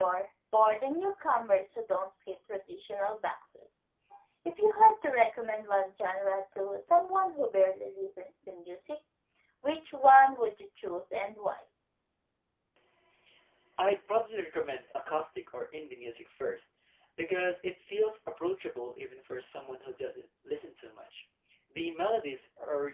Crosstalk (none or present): none